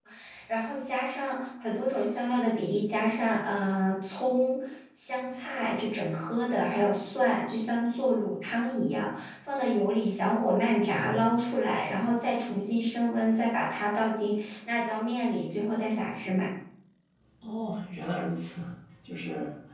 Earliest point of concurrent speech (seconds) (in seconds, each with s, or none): none